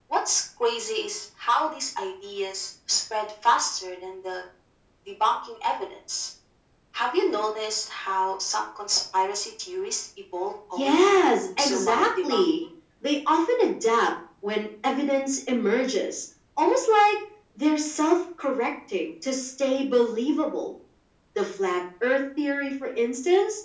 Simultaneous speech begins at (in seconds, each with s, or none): 10.8 s